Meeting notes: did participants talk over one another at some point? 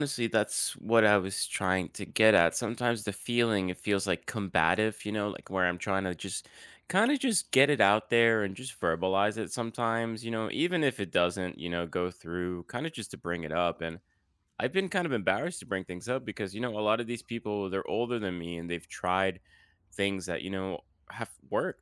No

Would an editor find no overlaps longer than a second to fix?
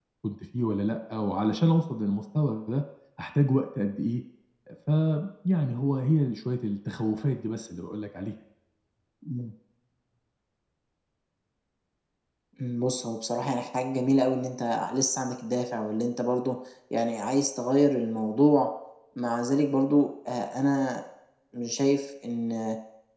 Yes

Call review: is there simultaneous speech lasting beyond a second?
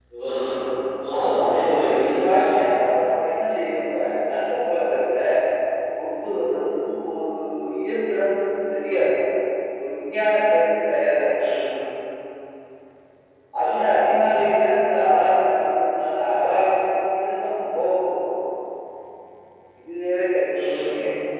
Yes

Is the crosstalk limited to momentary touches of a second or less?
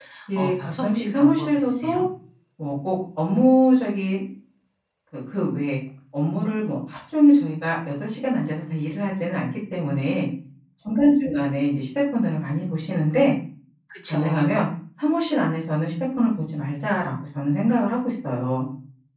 No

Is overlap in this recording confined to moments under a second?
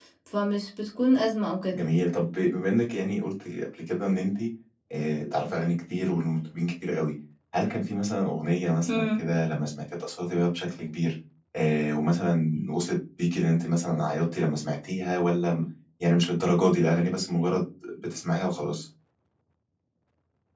Yes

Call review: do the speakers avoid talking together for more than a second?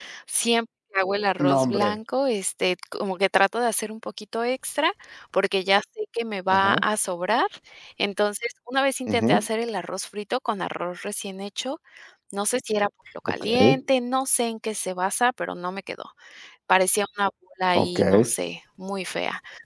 Yes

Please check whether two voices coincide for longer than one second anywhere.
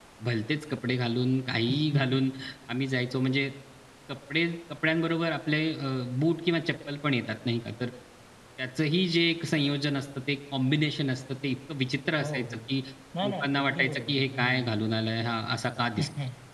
Yes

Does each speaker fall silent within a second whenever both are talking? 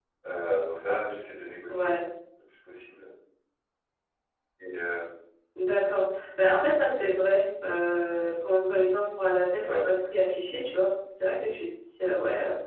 Yes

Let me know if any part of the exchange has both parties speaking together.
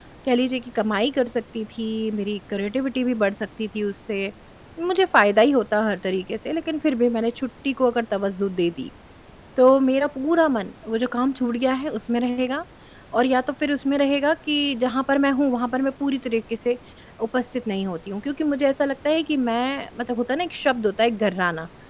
No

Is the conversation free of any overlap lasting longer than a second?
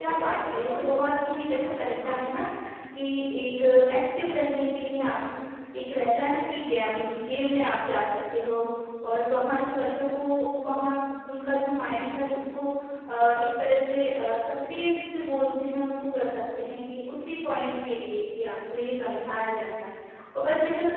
No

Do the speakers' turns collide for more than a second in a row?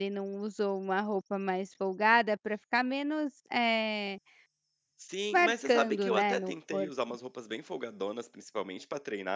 Yes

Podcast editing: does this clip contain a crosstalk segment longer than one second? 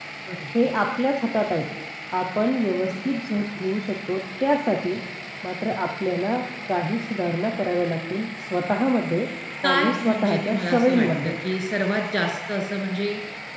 Yes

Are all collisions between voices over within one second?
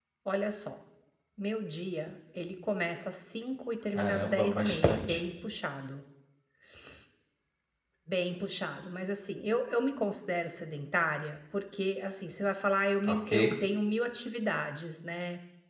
No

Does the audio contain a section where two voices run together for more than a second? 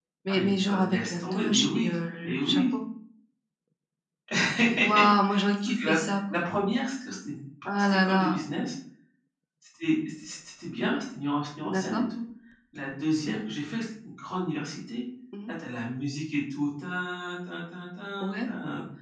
Yes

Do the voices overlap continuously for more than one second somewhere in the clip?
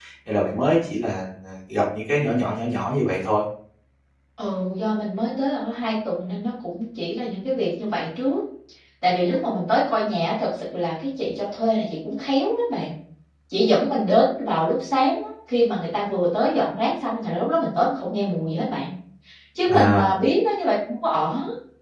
No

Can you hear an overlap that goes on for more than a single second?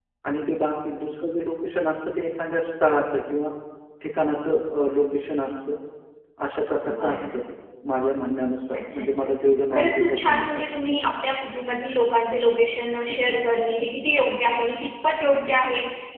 Yes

